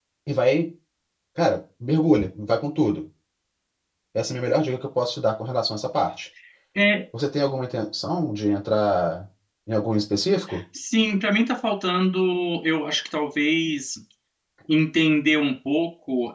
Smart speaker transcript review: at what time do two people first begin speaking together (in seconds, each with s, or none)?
none